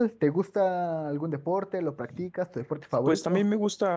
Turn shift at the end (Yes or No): Yes